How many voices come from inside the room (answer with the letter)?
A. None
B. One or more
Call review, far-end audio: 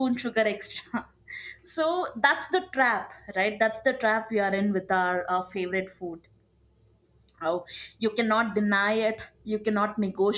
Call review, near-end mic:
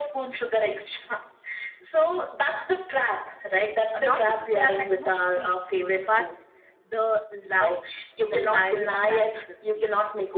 B